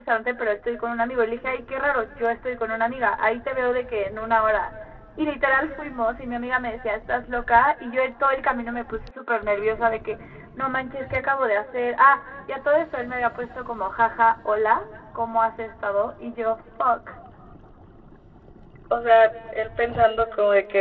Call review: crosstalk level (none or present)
none